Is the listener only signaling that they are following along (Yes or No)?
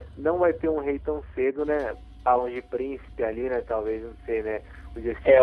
No